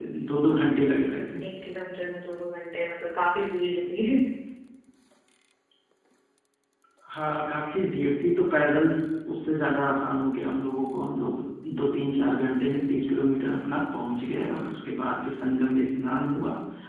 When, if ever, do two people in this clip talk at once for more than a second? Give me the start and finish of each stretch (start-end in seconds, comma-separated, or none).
none